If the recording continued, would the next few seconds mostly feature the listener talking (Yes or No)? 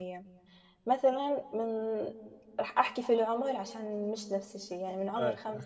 No